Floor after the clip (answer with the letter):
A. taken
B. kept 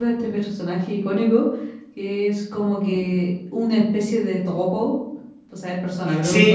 A